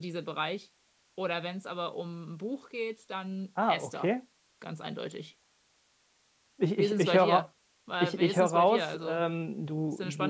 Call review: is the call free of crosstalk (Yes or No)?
No